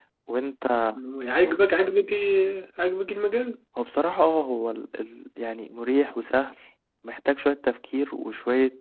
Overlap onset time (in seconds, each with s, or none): none